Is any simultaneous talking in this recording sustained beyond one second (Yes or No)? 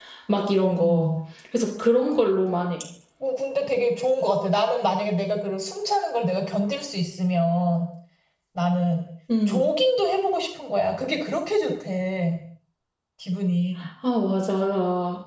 No